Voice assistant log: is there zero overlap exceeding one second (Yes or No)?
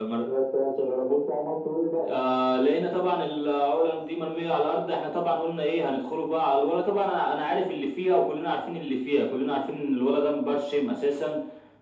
Yes